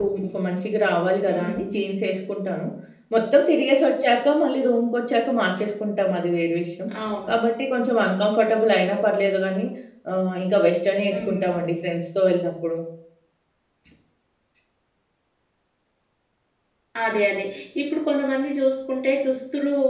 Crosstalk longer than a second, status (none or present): none